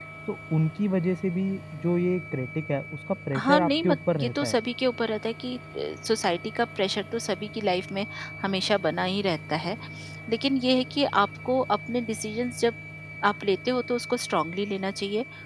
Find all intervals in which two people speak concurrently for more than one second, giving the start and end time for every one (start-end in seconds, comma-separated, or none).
3.4-4.6